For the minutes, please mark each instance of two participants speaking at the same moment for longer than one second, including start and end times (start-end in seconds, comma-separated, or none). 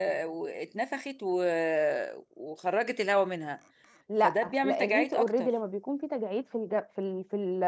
4.2-5.5